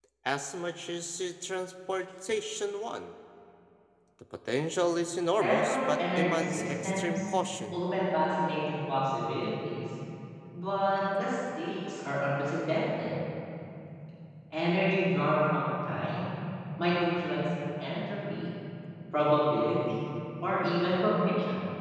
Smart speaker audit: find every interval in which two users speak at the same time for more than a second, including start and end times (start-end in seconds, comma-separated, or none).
5.4-7.2